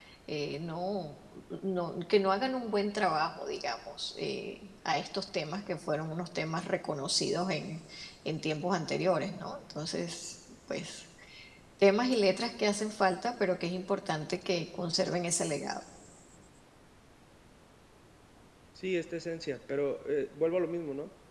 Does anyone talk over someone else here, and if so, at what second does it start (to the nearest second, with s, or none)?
none